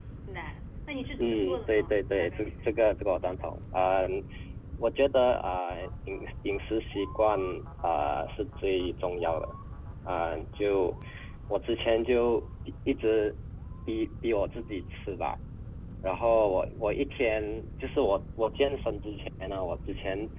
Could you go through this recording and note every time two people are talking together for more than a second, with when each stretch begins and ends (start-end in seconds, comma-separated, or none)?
1.2-2.5